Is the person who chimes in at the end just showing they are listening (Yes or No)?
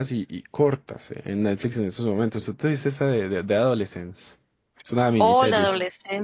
No